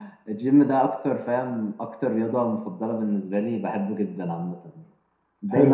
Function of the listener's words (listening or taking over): taking over